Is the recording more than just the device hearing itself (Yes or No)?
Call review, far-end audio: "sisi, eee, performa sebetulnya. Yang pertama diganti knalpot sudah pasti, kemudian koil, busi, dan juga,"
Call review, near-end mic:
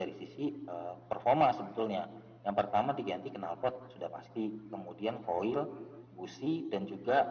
No